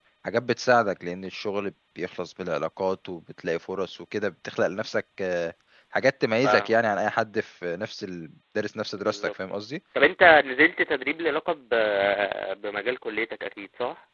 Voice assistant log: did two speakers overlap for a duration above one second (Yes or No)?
No